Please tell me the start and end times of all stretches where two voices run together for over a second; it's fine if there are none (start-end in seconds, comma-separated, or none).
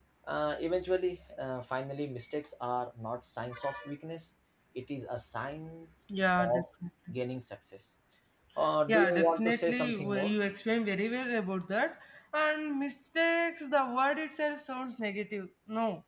8.9-10.4